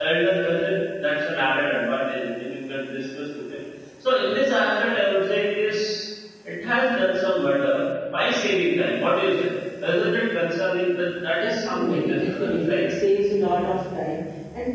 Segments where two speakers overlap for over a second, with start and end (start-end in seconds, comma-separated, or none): 11.4-12.8